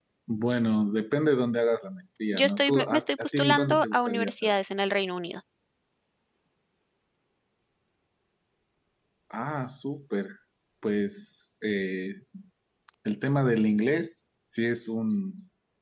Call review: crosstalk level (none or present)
present